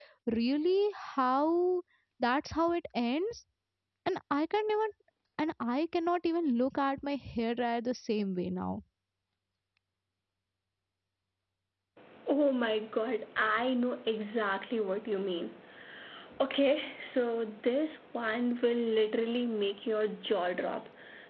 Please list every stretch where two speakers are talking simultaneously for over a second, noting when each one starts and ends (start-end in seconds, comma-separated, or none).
none